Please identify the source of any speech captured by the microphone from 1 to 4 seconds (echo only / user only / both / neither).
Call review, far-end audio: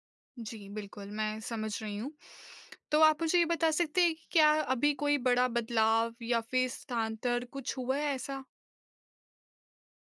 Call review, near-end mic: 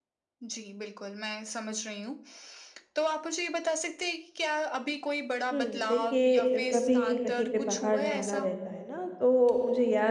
echo only